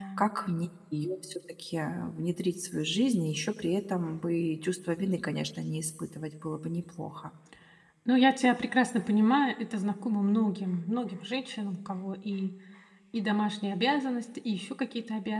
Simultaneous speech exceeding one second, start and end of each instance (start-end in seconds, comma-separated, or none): none